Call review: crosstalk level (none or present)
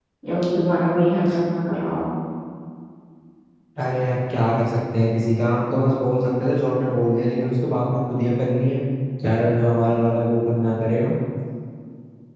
none